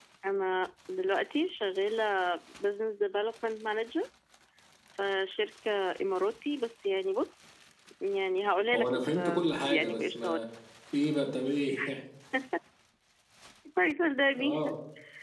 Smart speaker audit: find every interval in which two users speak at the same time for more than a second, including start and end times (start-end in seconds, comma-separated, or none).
8.7-10.4